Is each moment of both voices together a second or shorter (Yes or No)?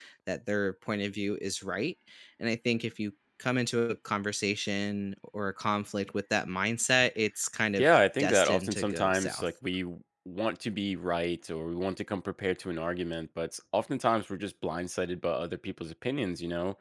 No